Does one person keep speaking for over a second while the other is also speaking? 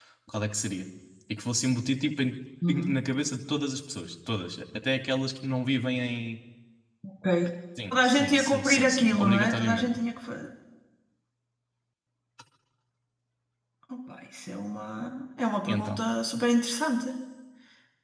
Yes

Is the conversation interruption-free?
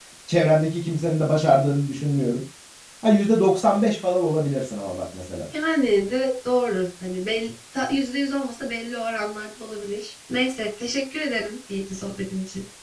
Yes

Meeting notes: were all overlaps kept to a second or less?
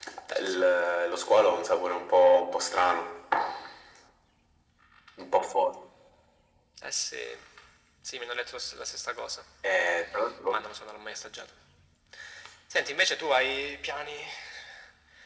Yes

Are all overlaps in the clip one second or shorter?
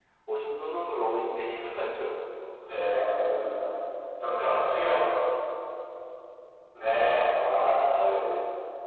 No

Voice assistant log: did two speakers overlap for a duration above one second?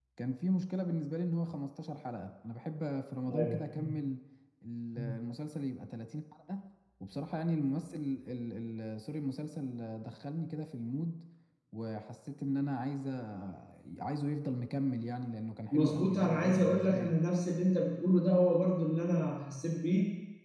Yes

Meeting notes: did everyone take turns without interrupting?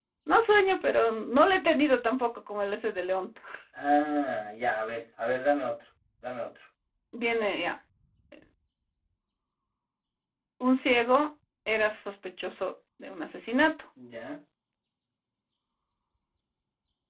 Yes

